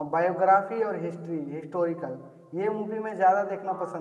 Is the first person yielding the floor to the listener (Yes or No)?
No